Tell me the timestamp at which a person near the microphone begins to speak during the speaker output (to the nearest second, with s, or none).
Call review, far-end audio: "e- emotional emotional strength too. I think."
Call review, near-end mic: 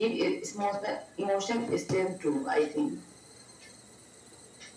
none